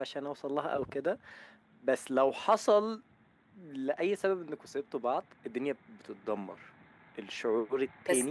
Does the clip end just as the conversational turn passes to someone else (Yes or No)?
Yes